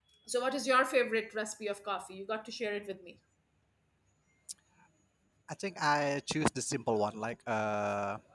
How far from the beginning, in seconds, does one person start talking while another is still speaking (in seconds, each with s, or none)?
none